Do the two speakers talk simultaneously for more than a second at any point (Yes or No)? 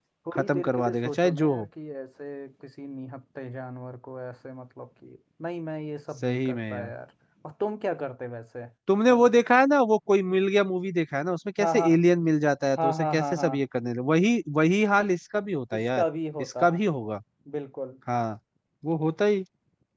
Yes